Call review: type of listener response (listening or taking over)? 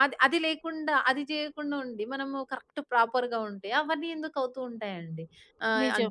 listening